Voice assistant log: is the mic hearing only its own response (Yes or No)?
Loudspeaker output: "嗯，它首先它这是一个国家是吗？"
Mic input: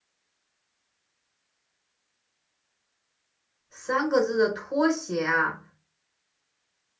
No